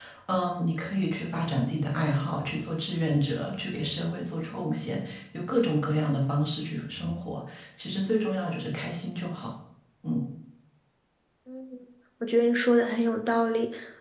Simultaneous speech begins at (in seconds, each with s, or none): none